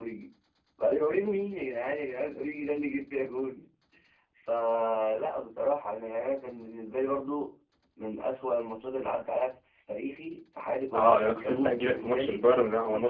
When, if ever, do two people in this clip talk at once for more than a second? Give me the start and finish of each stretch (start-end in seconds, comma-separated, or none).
10.9-12.4